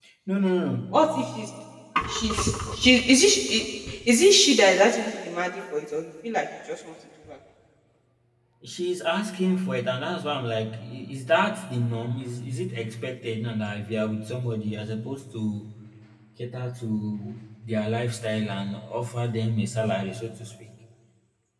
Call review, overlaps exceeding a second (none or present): none